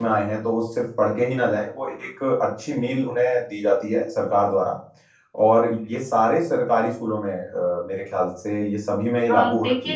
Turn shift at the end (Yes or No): Yes